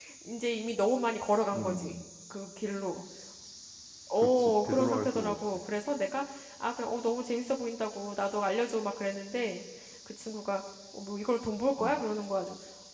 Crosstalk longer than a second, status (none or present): present